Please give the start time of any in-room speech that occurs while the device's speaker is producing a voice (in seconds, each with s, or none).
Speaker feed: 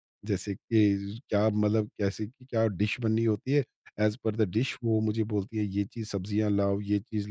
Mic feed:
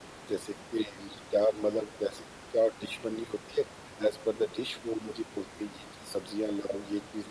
none